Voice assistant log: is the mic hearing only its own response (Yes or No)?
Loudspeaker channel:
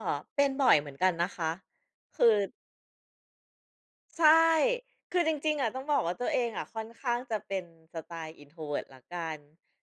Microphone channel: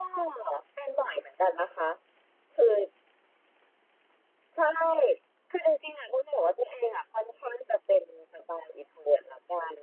Yes